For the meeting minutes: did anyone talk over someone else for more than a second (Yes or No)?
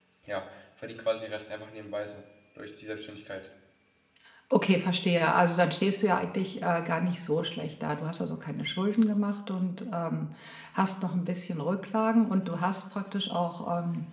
No